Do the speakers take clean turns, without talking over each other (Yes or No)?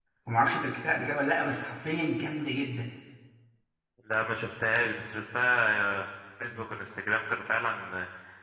Yes